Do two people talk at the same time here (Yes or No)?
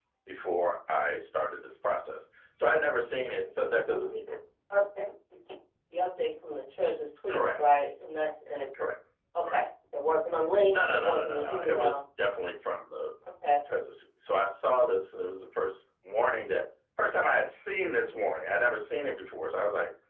Yes